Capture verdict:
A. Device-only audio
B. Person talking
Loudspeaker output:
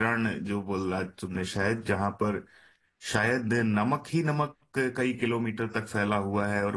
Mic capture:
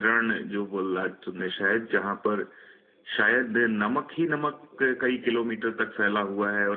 A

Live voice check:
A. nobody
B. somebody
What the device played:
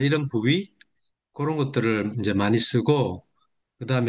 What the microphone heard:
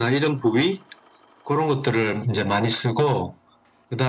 A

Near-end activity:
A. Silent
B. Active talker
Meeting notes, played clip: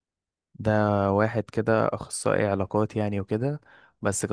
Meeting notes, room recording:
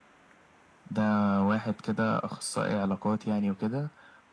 A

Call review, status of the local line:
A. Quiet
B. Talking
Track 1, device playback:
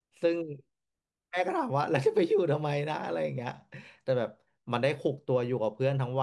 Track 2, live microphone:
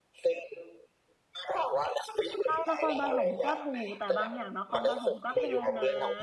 B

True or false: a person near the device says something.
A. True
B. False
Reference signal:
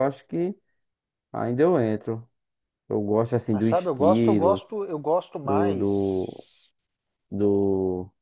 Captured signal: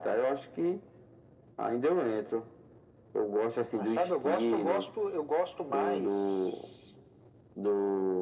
B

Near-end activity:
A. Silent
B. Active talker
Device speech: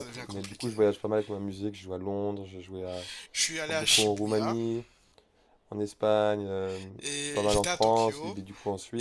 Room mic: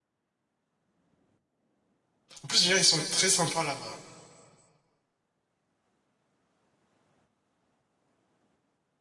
B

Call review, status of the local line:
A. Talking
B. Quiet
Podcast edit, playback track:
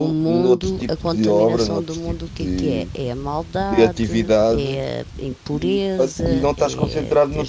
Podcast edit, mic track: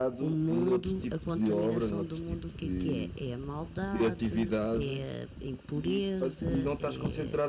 B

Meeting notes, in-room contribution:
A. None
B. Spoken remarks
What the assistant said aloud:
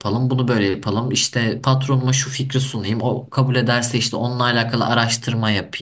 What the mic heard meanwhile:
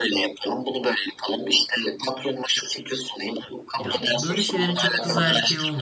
B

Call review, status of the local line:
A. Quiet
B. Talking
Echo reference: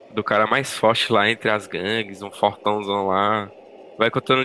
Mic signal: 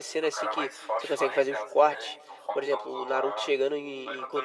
B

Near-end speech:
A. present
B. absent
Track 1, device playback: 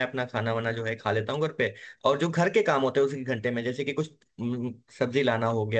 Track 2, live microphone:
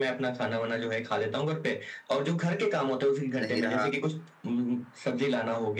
A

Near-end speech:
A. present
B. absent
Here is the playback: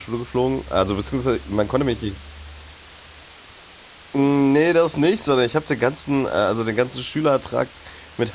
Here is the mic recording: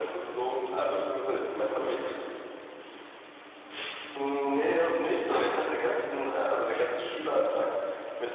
B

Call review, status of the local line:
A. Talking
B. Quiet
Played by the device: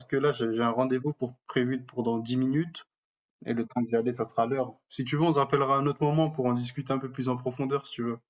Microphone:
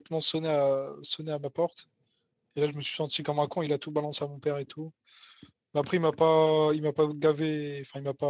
A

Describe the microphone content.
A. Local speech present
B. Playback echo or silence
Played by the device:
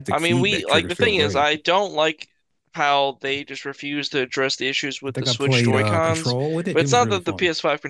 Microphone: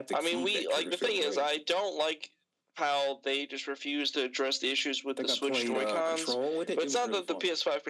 B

